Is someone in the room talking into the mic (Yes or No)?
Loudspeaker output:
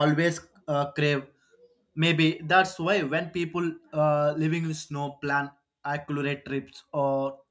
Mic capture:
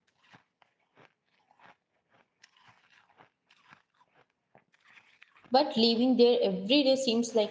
Yes